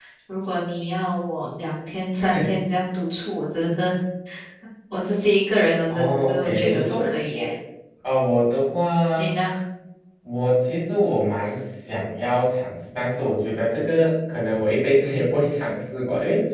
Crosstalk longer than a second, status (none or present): present